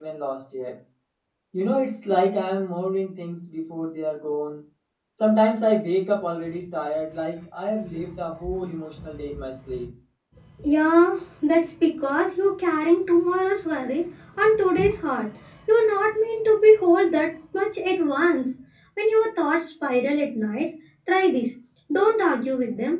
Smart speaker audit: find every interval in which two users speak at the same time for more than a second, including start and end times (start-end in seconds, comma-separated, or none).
none